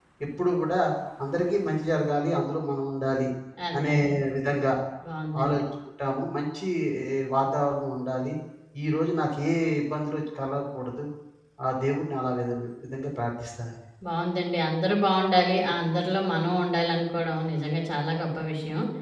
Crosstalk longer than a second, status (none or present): none